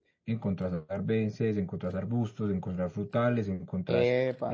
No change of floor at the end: Yes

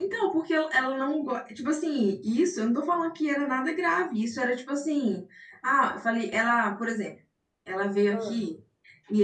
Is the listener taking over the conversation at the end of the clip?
No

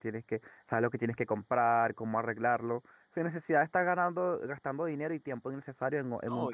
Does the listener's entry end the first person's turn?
Yes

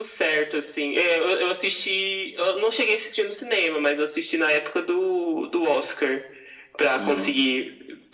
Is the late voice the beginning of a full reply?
No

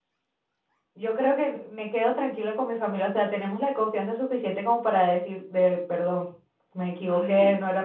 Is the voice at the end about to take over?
No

